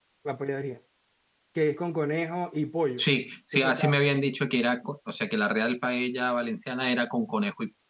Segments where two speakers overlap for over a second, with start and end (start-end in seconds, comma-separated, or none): none